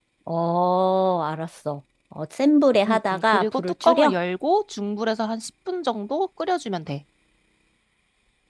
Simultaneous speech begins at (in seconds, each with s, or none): 2.9 s